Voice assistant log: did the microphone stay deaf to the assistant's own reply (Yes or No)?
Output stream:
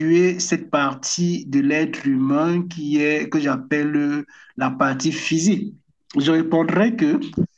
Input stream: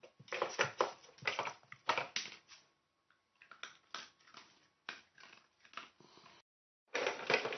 Yes